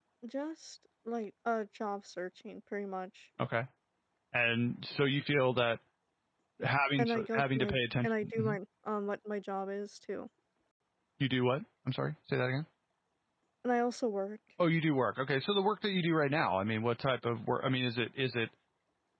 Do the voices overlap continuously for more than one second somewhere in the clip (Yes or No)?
Yes